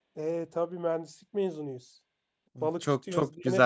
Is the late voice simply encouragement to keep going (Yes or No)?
No